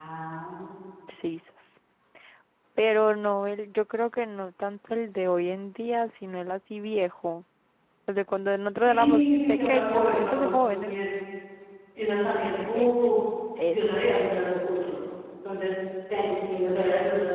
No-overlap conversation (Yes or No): No